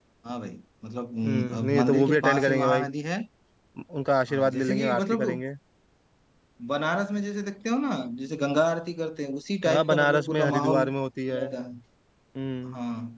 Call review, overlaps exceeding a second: present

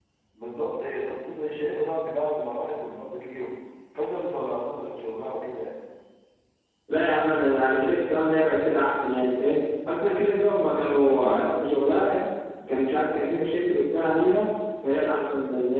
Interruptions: none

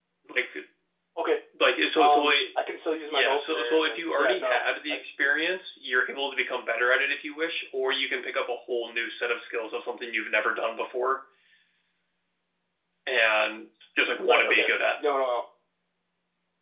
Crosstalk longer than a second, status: present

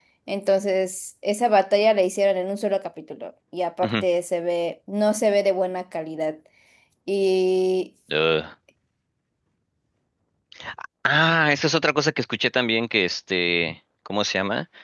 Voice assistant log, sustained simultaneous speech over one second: none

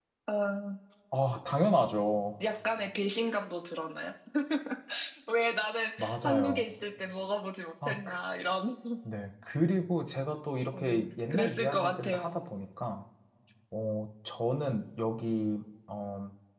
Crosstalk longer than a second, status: present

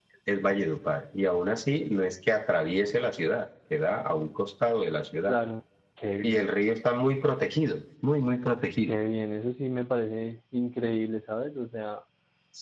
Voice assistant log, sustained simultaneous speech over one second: none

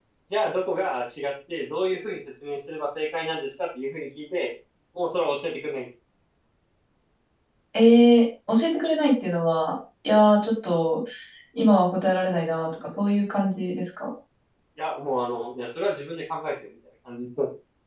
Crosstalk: none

